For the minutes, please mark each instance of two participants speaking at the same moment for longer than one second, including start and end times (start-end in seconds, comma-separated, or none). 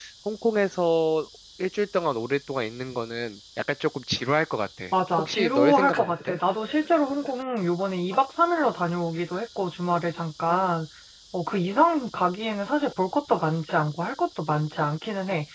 4.9-6.4